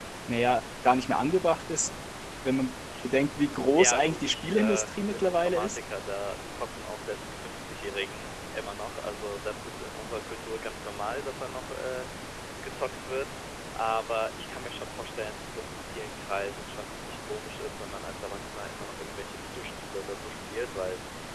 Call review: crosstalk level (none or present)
present